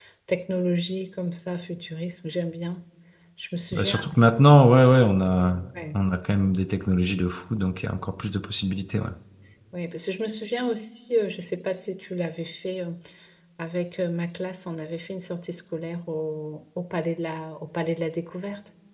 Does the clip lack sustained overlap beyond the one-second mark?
Yes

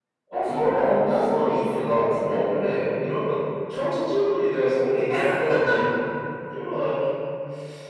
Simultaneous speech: Yes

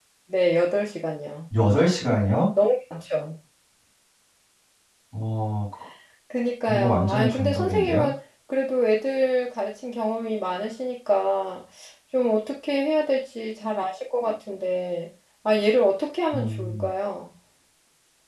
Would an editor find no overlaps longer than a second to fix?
No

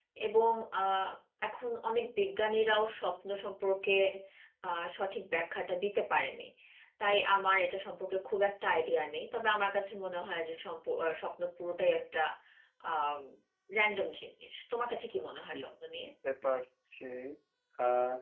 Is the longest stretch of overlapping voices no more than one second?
Yes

